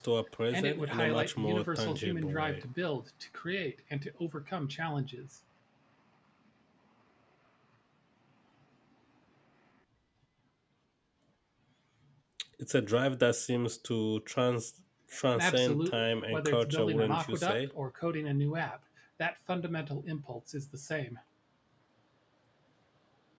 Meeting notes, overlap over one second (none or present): present